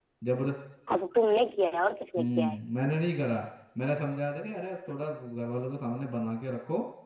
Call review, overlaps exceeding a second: none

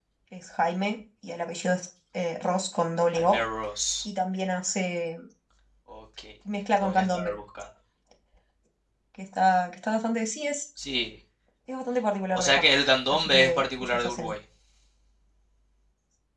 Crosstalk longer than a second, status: present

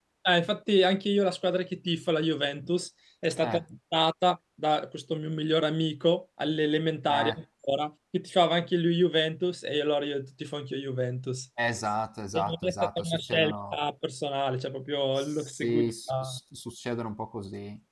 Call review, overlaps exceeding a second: present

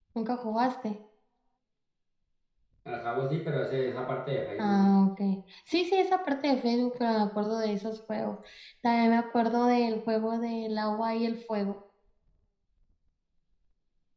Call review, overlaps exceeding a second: none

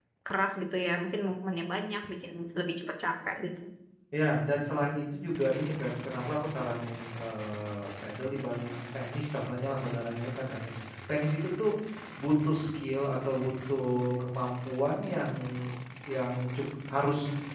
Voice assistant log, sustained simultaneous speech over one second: none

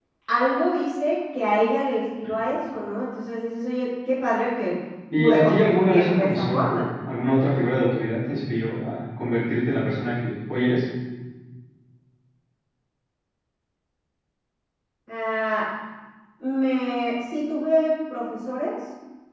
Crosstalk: present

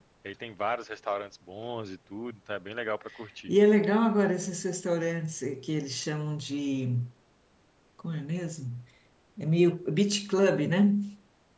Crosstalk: none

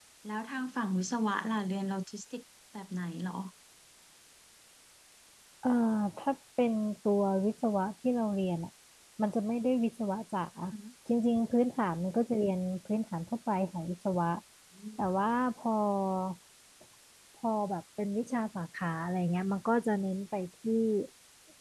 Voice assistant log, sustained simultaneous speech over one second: none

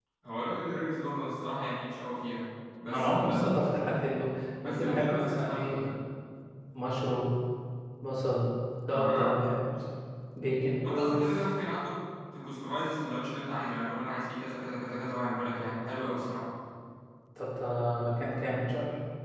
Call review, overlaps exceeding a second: present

